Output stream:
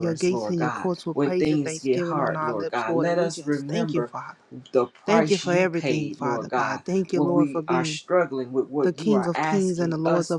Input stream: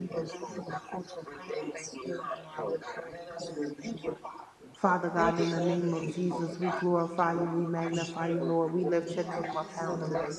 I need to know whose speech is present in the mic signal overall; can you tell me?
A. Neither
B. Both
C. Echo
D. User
B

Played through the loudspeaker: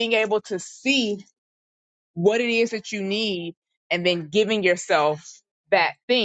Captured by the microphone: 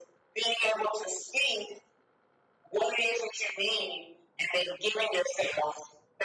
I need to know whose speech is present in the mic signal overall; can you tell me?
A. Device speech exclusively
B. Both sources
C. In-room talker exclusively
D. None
A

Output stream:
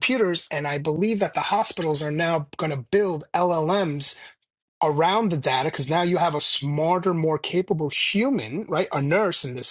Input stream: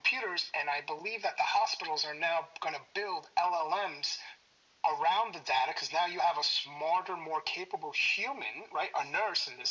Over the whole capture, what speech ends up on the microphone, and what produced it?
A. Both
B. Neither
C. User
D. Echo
D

